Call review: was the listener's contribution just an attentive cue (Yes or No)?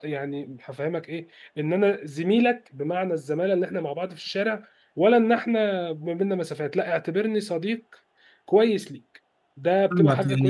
No